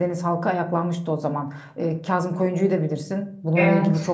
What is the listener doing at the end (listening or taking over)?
listening